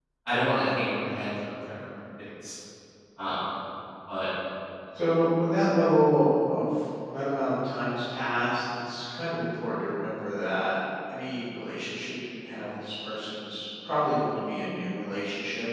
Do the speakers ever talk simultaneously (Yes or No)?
No